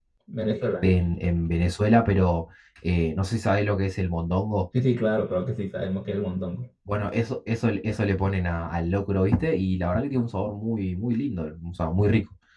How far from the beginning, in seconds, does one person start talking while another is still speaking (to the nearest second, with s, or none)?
none